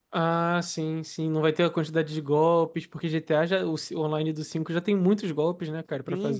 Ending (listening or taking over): taking over